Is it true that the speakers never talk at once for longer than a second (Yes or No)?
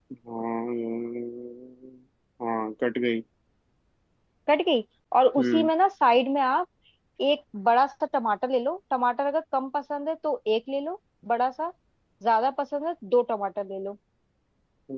Yes